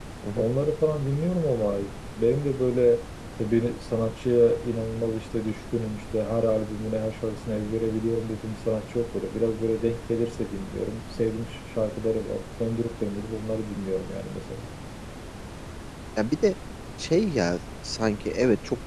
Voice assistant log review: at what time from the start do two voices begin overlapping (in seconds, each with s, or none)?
none